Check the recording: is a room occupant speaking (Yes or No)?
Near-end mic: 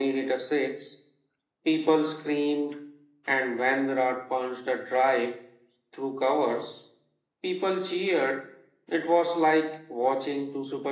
No